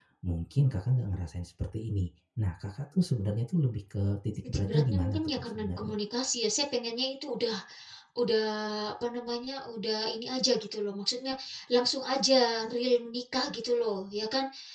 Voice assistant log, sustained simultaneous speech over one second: present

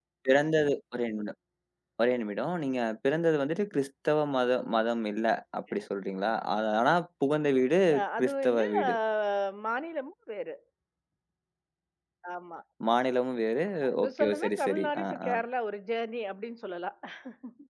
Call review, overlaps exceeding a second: present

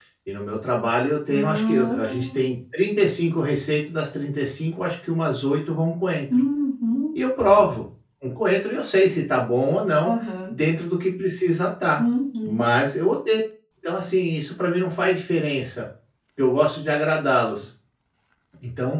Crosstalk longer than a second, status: present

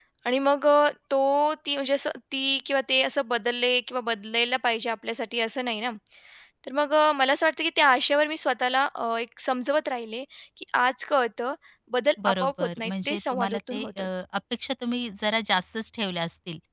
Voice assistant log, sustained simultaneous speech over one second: present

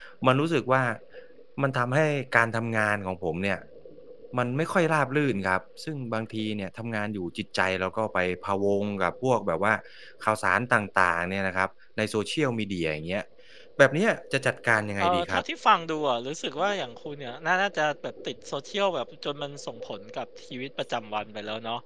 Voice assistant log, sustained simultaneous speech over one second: none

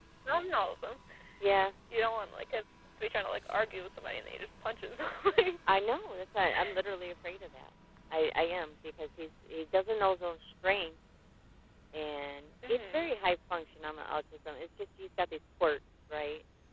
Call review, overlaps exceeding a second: none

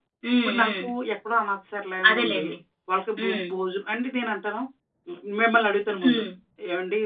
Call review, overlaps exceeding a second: none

